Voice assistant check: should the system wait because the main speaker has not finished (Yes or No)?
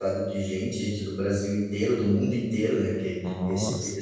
Yes